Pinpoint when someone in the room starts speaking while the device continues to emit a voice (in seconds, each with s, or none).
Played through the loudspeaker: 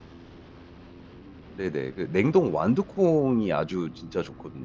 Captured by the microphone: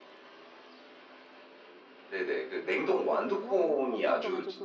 2.8 s